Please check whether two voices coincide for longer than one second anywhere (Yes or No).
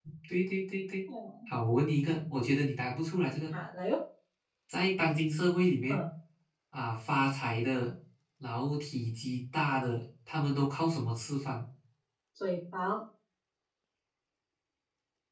No